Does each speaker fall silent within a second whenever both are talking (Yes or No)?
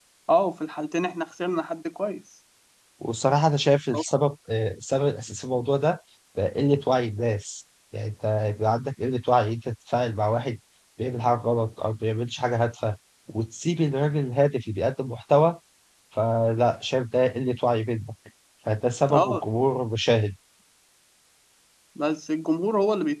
Yes